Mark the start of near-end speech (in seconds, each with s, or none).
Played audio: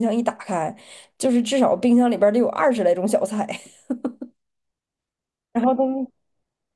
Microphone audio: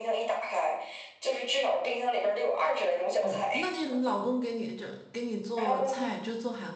3.2 s